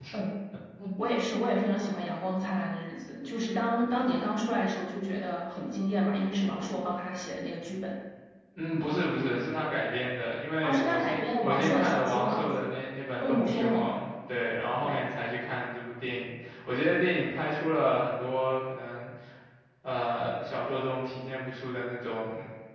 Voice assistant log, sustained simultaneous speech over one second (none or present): present